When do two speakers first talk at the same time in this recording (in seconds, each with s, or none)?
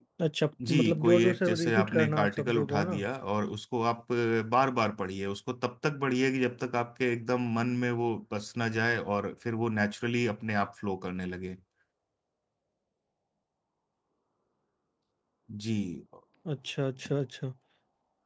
0.7 s